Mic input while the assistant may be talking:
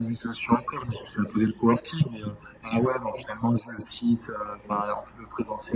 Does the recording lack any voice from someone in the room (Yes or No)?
Yes